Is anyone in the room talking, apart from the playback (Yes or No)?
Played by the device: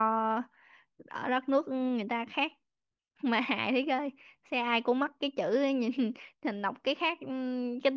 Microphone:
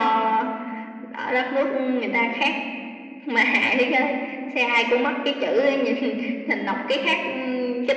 No